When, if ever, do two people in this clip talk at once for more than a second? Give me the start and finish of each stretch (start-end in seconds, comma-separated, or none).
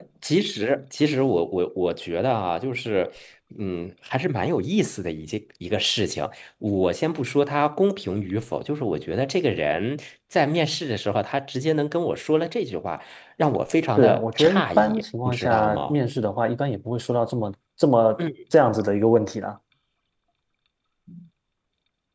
14.0-16.0